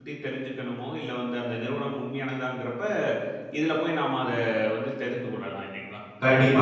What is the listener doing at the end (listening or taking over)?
taking over